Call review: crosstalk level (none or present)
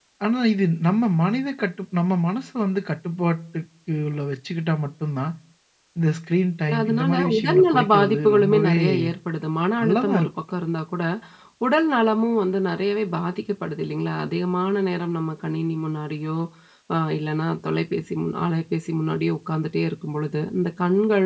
present